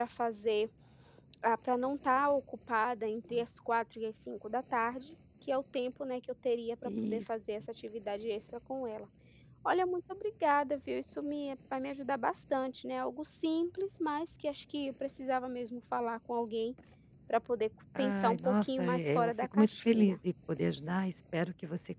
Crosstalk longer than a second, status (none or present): present